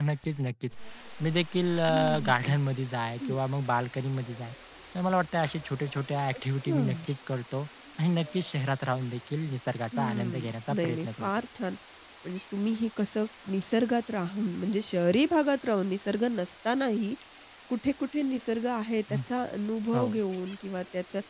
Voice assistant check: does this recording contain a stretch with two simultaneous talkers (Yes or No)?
Yes